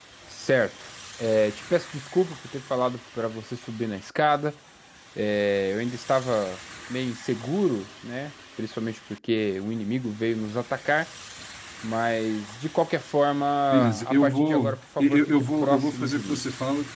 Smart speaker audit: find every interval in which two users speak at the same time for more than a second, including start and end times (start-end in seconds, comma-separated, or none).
13.7-16.4